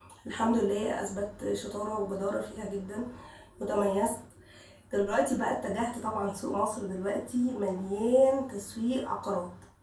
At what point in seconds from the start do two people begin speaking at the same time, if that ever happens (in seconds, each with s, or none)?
none